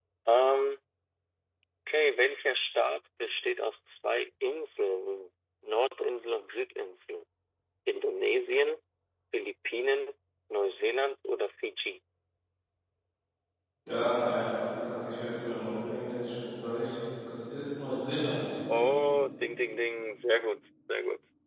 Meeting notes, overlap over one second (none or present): none